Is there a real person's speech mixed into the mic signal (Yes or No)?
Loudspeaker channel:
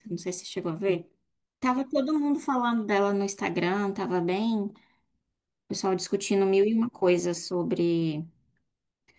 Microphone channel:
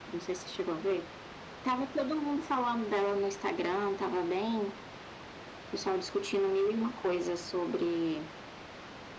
No